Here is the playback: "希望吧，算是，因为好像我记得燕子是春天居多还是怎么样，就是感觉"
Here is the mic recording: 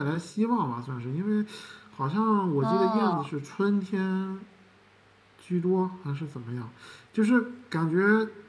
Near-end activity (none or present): present